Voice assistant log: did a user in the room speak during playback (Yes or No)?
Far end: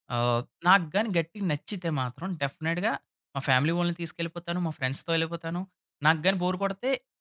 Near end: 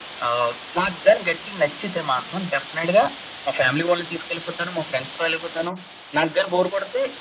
No